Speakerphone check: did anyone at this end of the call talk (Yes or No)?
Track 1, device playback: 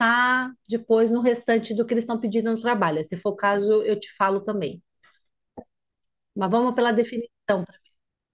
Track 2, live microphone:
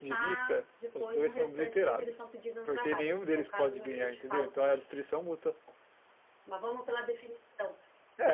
Yes